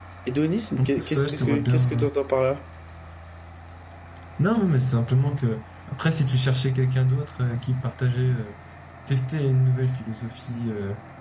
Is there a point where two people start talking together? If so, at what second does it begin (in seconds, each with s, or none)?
0.8 s